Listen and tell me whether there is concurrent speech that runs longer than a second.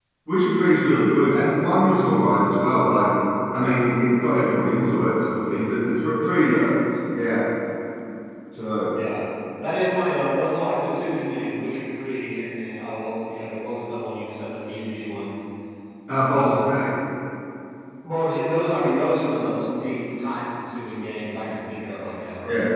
No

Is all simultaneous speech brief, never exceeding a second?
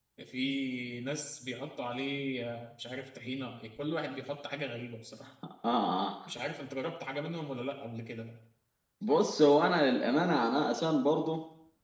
Yes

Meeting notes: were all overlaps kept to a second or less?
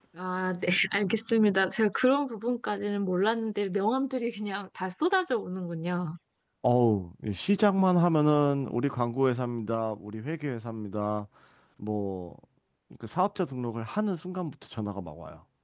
Yes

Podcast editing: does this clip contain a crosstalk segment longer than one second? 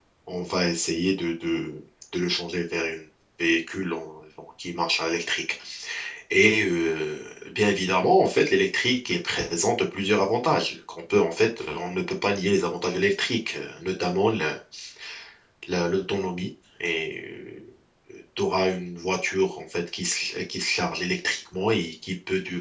No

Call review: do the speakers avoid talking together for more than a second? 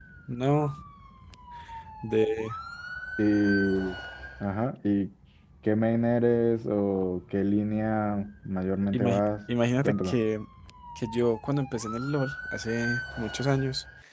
Yes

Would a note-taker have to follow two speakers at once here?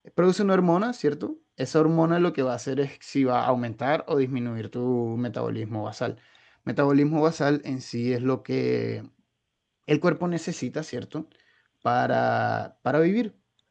No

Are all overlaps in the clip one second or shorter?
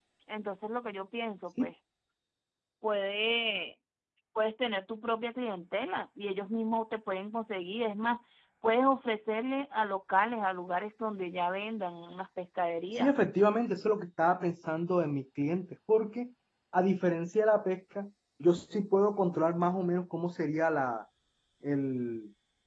Yes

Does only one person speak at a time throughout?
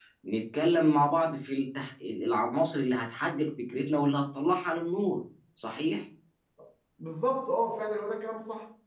Yes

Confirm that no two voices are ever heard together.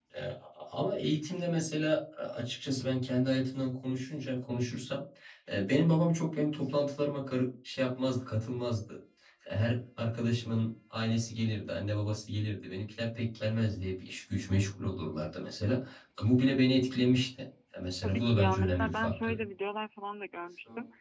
No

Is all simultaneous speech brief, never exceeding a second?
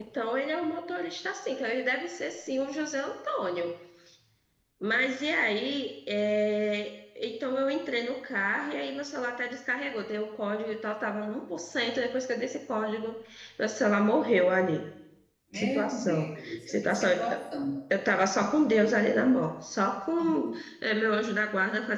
No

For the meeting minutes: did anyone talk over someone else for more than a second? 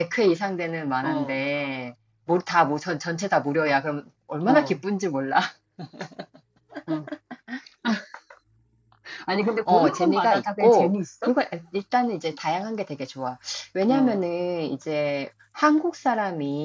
Yes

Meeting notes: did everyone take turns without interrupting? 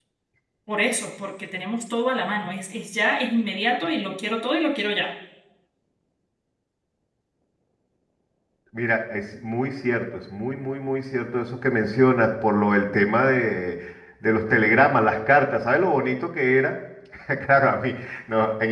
Yes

